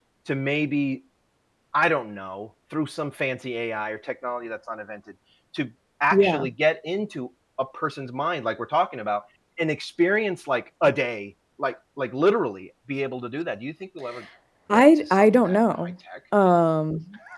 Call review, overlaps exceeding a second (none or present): present